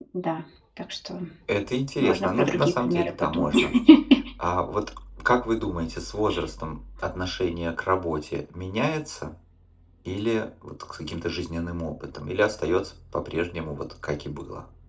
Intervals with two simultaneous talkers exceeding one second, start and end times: 2.0-3.5

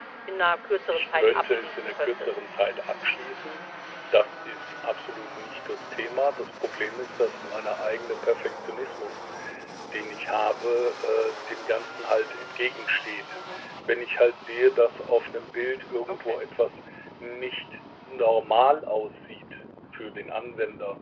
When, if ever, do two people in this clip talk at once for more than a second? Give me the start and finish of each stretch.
0.9-2.4

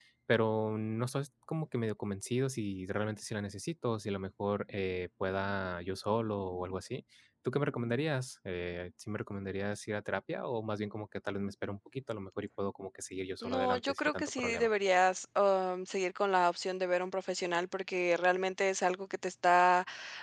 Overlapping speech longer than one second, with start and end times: 13.4-14.7

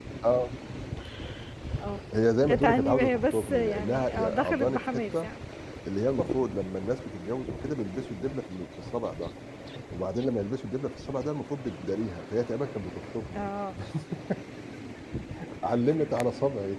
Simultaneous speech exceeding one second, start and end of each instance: 2.5-5.3

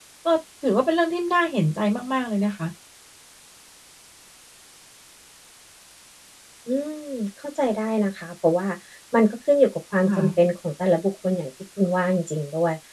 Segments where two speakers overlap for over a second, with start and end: none

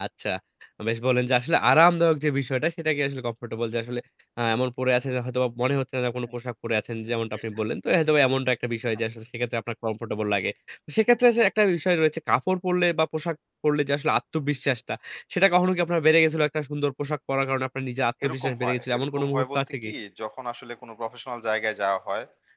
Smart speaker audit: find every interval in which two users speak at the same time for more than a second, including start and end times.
18.2-19.9

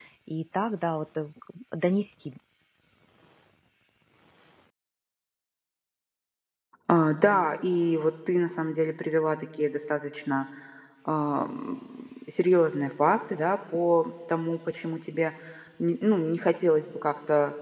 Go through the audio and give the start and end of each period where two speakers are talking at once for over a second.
none

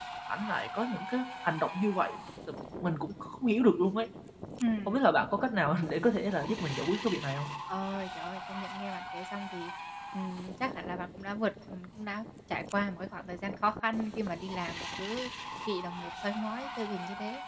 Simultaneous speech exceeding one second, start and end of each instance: none

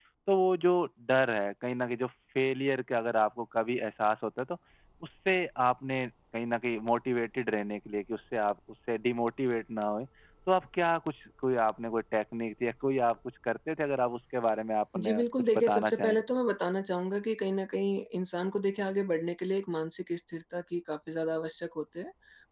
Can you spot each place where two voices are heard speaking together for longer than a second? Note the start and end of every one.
14.9-16.2

